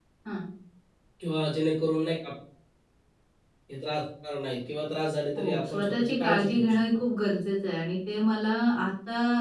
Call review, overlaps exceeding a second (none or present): present